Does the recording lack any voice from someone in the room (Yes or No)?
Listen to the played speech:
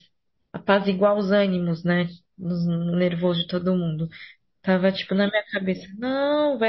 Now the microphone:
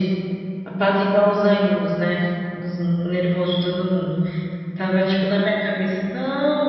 Yes